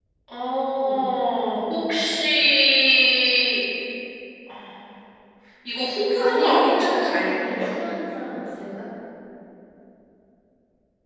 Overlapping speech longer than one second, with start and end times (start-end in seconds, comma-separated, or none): 6.2-7.7